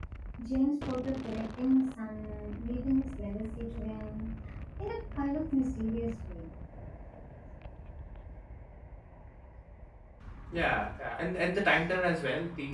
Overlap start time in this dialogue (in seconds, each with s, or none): none